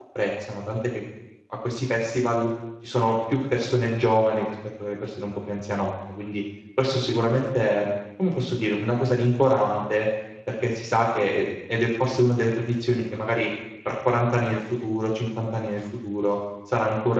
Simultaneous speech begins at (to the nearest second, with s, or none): none